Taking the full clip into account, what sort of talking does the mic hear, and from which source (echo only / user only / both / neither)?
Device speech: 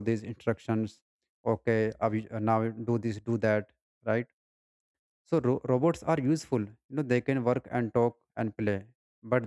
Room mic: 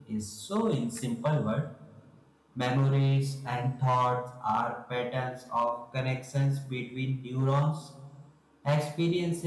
user only